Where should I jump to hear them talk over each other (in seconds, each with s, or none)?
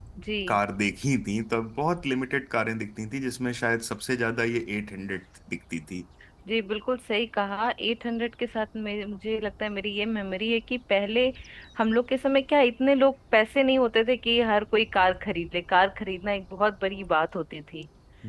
none